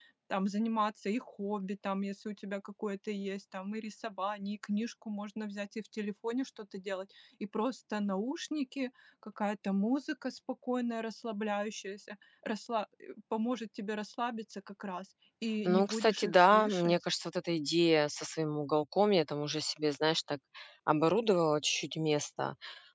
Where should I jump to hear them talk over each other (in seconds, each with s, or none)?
15.7 s